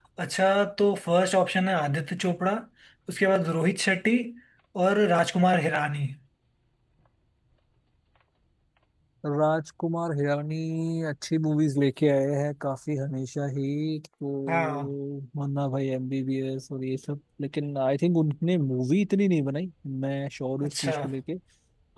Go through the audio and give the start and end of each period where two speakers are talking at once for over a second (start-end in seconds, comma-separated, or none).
none